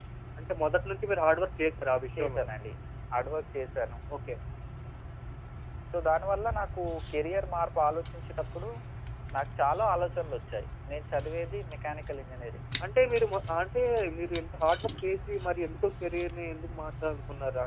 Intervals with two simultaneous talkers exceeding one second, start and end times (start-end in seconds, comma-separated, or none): none